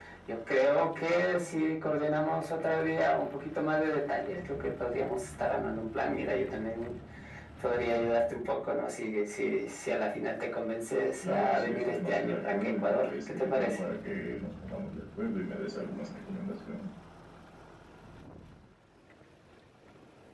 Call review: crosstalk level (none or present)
present